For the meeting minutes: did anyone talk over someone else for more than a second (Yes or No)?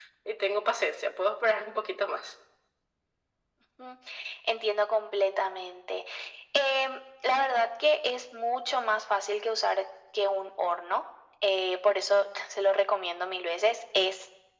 No